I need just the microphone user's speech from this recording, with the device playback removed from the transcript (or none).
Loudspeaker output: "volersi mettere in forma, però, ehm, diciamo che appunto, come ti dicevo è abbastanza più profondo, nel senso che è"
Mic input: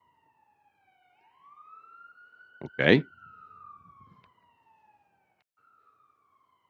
Okay.